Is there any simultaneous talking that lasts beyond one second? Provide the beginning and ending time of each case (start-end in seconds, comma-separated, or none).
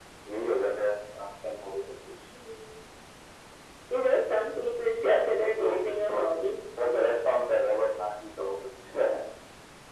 4.9-6.2